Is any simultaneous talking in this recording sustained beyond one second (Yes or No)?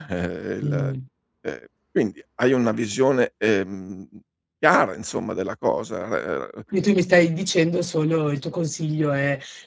No